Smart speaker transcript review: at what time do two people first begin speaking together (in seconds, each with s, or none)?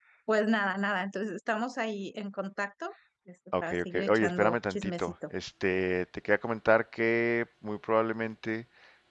3.5 s